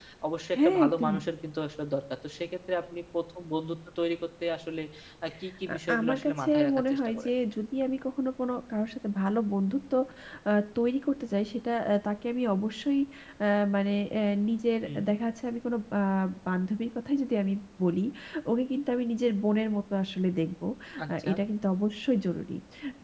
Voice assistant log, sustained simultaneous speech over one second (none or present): present